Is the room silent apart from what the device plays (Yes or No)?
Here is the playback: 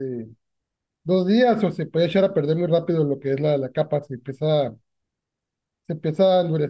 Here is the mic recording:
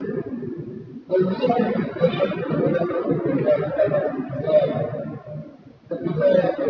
Yes